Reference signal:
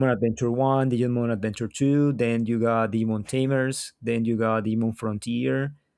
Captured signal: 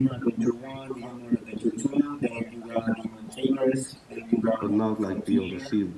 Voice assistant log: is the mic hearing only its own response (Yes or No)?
No